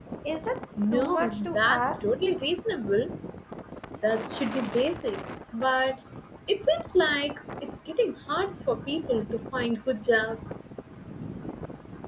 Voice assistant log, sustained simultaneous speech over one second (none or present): present